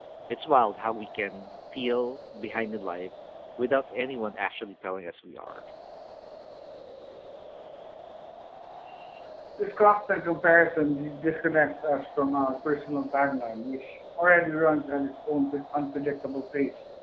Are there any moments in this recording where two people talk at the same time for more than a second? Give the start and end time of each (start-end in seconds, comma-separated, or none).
none